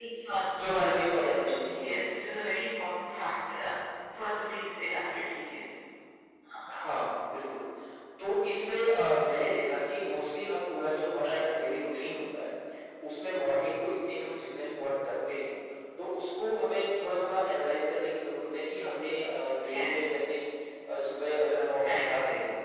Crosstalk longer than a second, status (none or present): present